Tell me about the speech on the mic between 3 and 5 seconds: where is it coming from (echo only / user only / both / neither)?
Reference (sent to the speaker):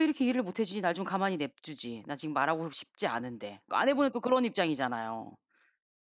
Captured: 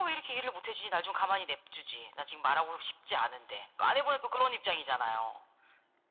echo only